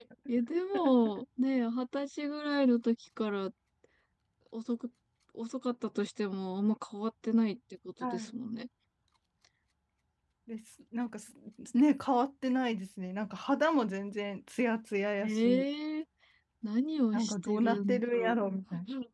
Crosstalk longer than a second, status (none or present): present